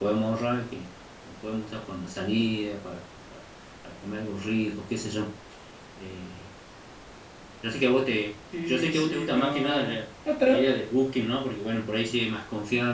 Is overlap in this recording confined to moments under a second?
No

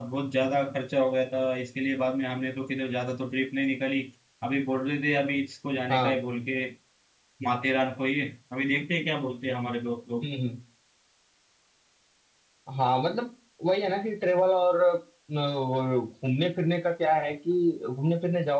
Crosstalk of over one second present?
No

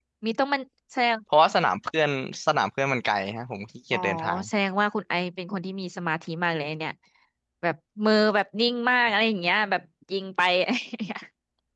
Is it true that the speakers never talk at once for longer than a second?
Yes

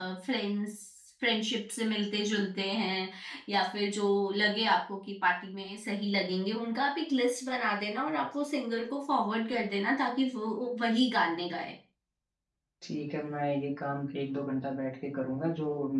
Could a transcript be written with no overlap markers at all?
Yes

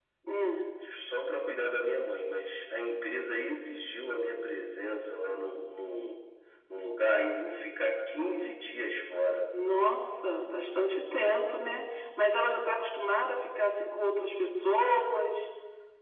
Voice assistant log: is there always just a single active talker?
Yes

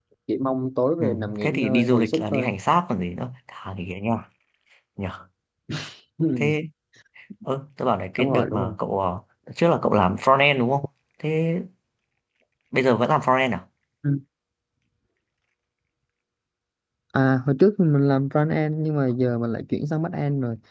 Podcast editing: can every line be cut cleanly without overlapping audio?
No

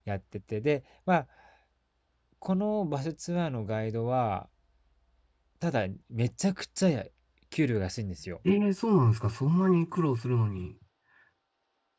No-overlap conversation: Yes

